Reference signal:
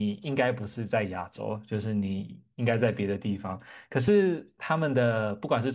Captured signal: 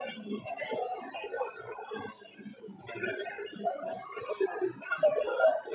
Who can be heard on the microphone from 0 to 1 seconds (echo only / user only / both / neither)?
echo only